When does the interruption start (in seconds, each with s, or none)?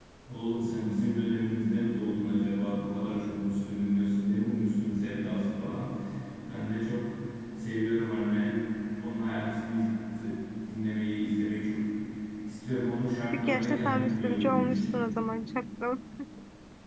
13.3 s